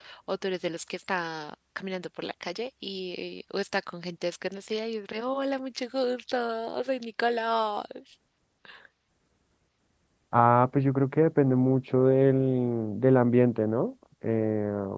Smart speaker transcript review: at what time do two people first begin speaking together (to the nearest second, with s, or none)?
none